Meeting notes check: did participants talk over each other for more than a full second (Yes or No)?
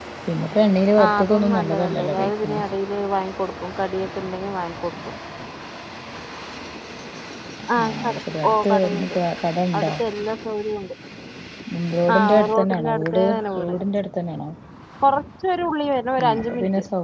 Yes